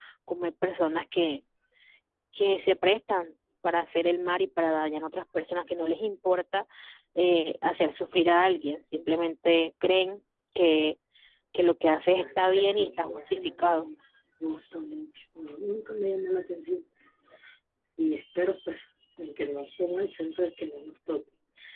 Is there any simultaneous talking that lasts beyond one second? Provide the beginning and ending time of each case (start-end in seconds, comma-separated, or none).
12.2-13.9